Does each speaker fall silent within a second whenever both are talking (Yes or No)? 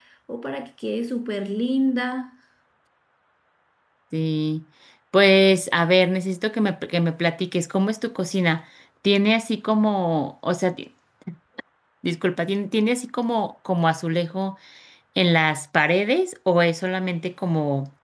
Yes